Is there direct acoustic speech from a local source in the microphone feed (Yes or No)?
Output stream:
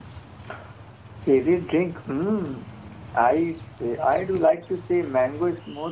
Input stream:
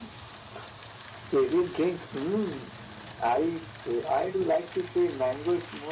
No